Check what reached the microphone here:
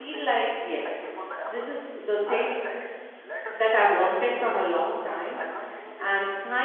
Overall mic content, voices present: both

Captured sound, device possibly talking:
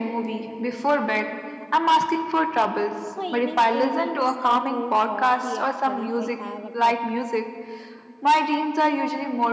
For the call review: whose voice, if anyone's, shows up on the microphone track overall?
both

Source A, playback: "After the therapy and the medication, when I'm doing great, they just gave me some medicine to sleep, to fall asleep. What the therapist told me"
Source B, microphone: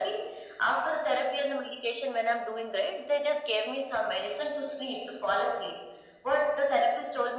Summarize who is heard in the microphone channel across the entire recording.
echo only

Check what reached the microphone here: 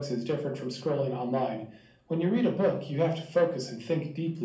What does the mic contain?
echo only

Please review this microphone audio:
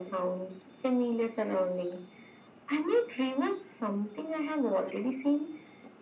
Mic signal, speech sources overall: echo only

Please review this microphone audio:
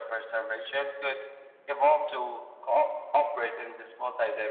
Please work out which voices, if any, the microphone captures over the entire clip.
echo only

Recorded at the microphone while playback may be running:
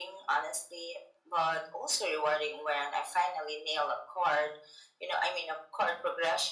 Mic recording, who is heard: echo only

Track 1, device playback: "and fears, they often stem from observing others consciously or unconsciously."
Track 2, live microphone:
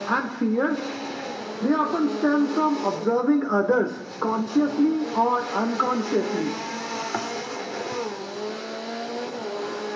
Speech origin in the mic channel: echo only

